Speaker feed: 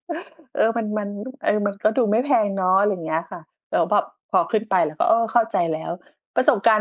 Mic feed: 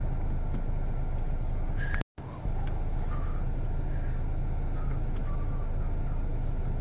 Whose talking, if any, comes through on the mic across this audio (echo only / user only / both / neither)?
neither